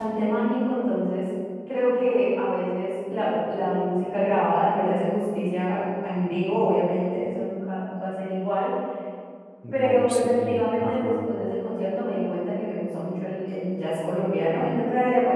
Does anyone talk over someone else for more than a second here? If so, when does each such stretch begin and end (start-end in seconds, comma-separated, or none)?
9.7-11.3